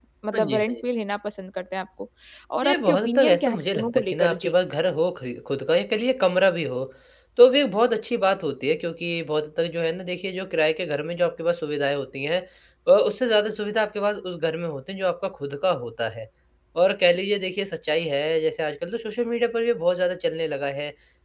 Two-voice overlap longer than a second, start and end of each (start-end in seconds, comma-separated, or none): 2.6-4.5